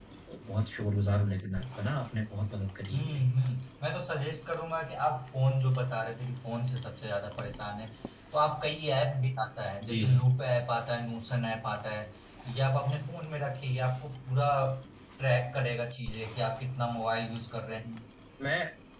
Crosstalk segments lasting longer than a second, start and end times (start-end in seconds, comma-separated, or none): none